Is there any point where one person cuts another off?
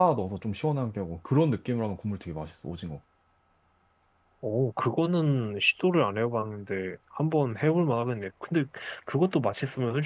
No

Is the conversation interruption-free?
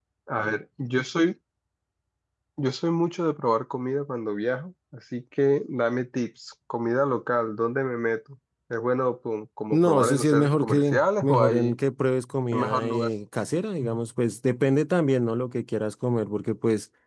No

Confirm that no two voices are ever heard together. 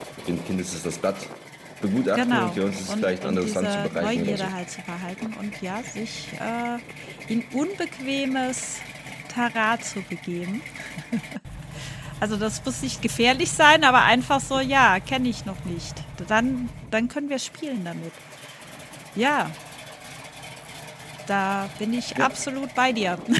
No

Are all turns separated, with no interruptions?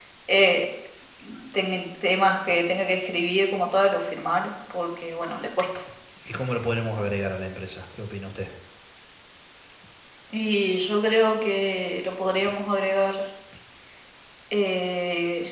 Yes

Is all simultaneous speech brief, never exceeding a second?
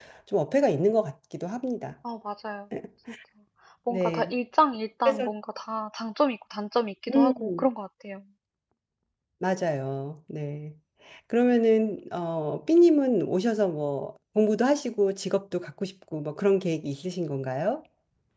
Yes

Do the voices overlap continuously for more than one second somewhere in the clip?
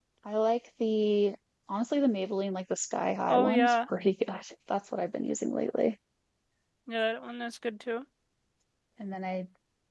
No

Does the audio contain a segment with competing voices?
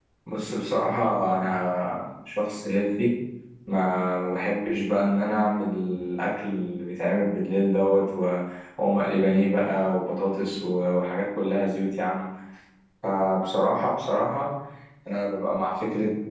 No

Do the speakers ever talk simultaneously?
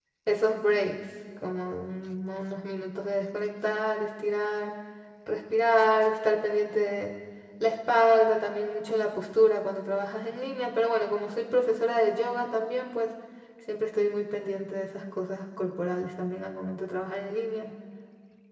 No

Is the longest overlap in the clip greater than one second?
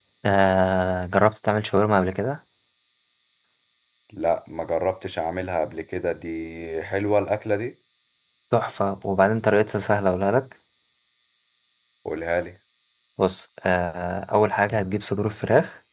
No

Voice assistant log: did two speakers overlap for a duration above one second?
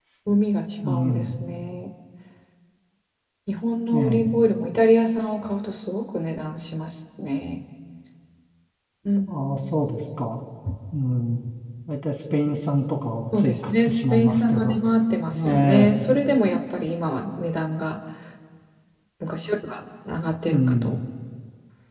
Yes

